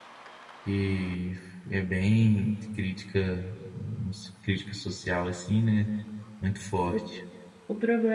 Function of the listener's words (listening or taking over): taking over